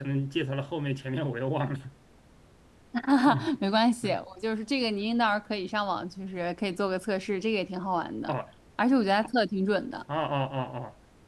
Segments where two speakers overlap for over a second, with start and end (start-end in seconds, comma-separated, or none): none